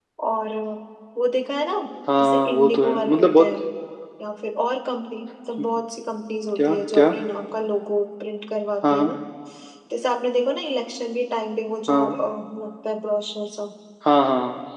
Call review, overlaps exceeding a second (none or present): present